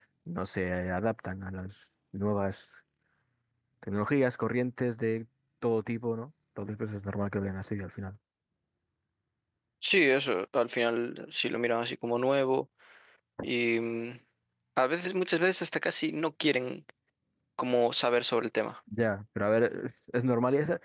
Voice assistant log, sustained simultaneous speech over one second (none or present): none